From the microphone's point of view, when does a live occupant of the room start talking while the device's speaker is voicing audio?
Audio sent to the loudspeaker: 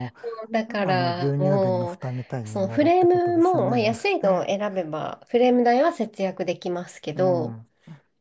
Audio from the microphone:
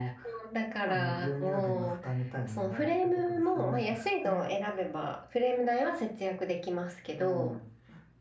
none

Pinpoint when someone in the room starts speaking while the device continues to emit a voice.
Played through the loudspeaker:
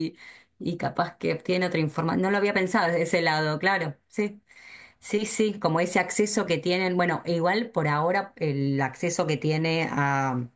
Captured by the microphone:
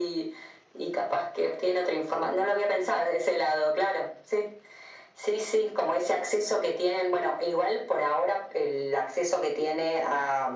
none

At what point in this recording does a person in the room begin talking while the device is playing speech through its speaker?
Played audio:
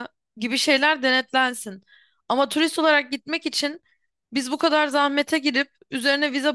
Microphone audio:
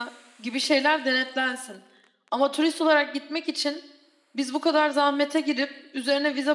none

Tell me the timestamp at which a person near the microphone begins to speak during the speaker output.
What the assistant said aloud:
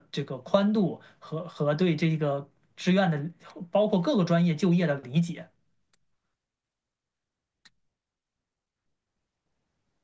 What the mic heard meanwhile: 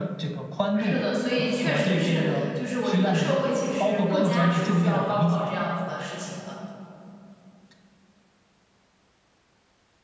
0.7 s

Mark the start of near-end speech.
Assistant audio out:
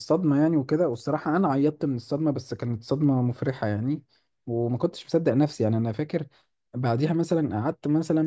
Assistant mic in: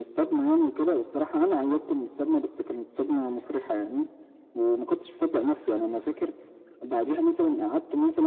none

